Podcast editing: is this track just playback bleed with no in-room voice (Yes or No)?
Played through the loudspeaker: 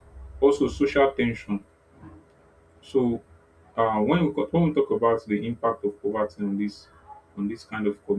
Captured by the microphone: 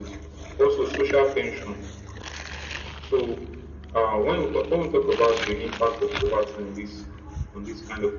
Yes